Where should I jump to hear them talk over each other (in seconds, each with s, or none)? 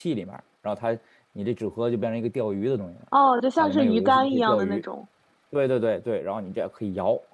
3.6 s